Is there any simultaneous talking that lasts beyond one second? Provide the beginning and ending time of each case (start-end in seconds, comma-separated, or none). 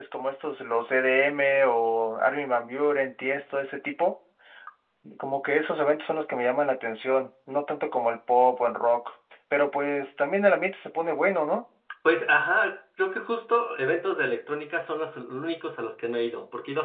none